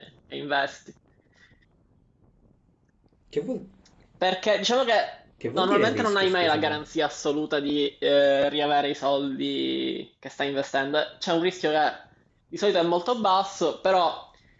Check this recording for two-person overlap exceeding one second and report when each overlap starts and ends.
5.5-6.8

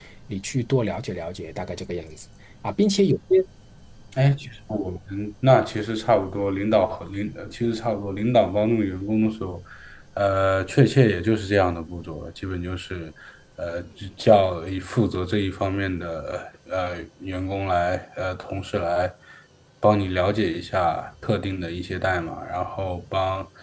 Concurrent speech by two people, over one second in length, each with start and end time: none

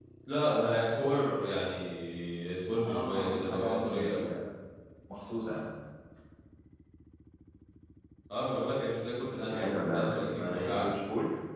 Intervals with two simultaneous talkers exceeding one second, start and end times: 2.8-4.3, 9.5-10.8

